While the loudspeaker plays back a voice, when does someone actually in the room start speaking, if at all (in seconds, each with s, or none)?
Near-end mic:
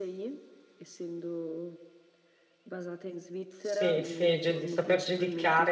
3.6 s